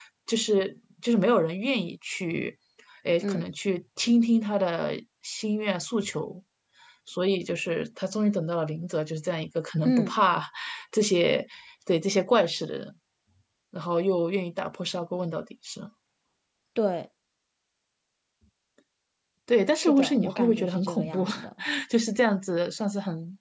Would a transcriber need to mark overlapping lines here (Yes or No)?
Yes